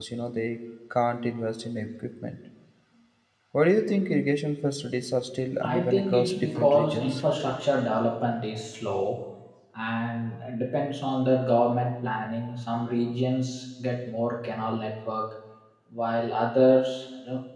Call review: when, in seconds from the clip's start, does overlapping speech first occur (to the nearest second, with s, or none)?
6 s